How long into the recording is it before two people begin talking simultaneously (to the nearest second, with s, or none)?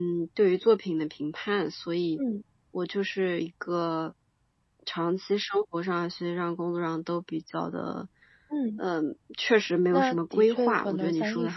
10 s